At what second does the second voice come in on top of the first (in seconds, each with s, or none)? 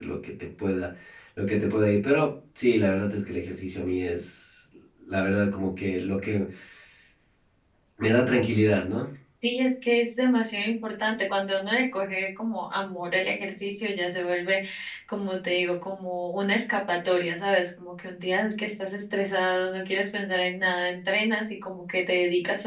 none